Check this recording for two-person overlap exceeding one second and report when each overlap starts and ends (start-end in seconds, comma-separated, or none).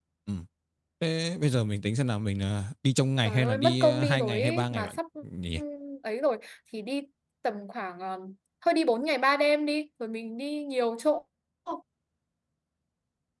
3.2-5.0